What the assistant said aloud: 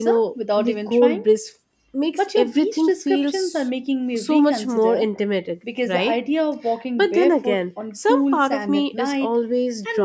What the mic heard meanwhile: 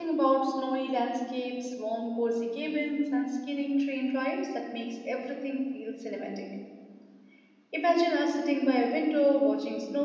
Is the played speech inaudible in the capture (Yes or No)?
Yes